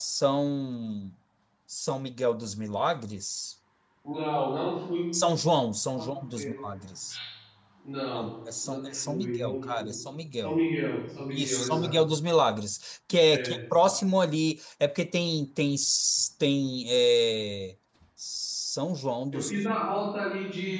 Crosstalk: present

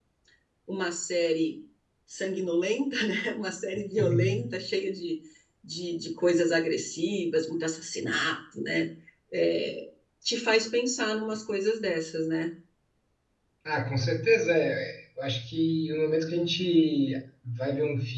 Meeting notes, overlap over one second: none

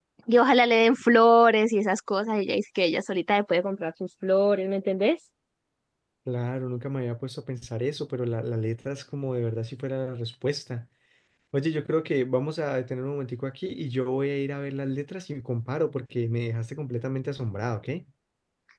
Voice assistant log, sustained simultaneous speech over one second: none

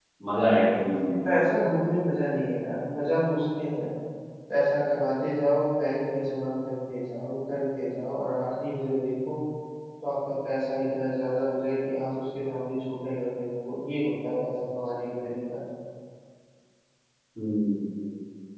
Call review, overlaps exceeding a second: none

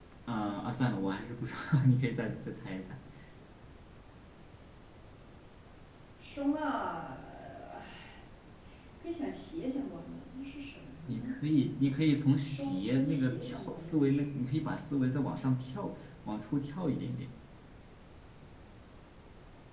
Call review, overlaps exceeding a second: present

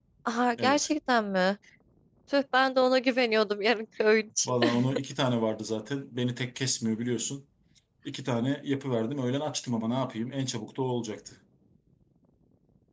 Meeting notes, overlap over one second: none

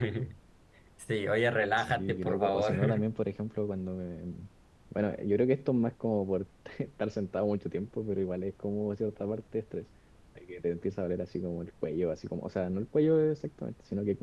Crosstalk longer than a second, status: present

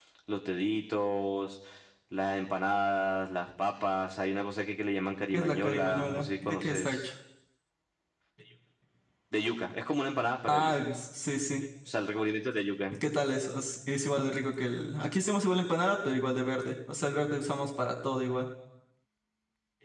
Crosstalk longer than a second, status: present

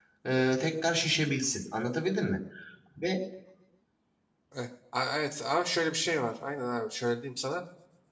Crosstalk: none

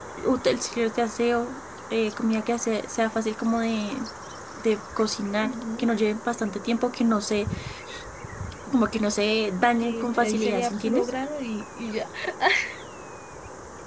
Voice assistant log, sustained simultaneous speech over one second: present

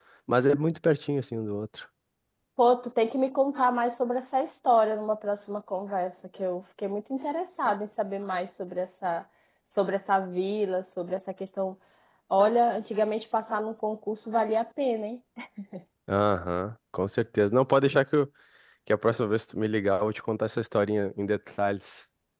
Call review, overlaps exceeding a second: none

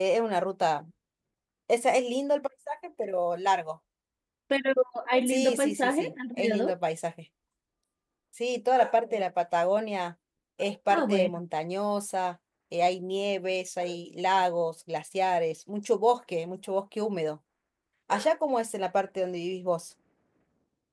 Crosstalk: present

